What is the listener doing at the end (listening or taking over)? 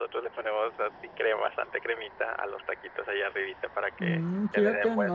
taking over